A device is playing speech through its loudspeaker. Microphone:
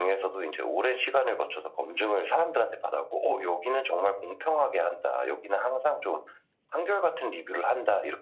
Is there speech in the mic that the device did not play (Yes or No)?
No